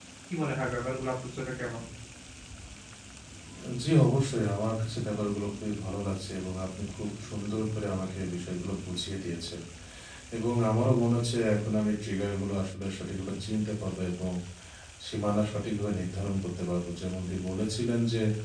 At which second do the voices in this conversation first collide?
none

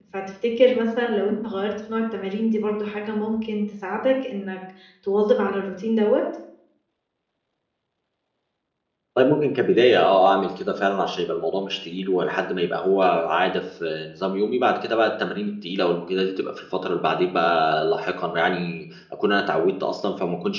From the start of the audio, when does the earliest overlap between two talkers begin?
none

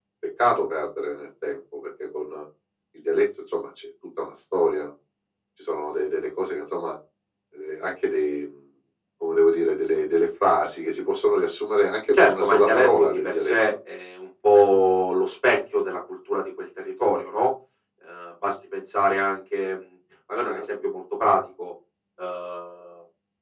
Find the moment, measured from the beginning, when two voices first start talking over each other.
12.1 s

